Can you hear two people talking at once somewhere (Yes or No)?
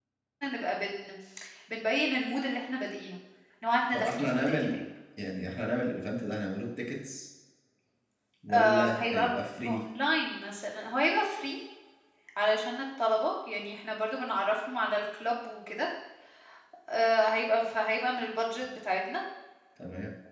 Yes